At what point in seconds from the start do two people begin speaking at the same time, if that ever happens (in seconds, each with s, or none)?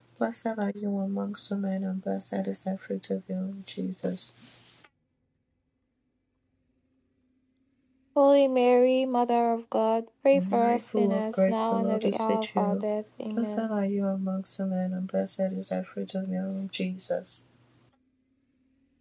10.3 s